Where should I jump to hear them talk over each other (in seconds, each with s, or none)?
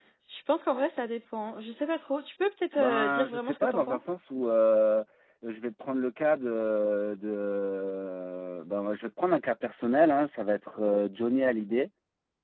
2.8 s